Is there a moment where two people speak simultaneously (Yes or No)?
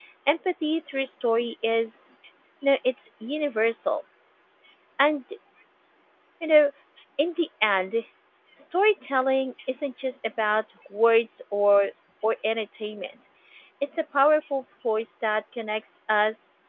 No